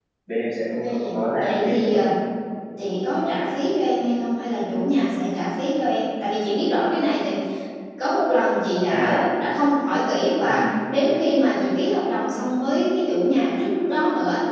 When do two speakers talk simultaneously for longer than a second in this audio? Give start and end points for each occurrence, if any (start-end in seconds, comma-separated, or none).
0.7-2.0